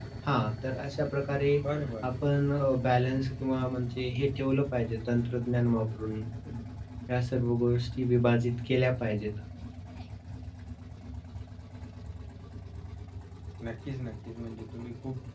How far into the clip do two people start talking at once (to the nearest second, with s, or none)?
none